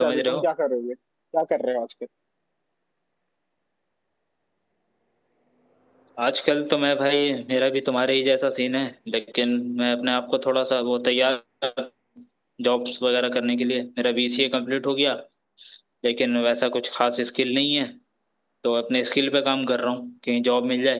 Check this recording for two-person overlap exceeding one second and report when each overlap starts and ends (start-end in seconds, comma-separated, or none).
none